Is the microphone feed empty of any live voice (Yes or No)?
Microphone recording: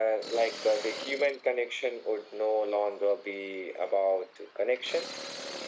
Yes